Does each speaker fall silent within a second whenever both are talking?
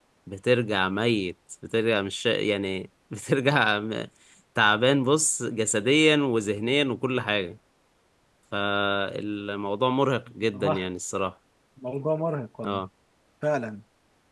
Yes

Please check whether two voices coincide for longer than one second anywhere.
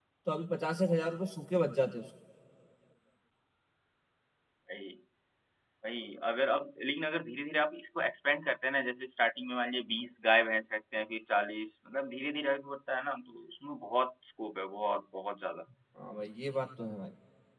No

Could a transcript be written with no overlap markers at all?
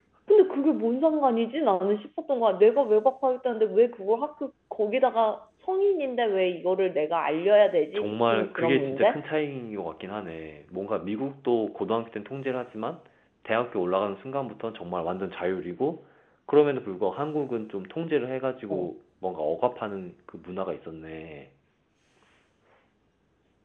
No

